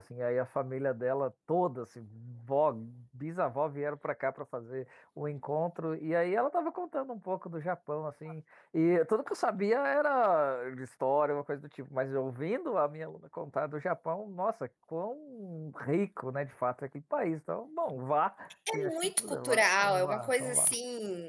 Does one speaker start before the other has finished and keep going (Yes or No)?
Yes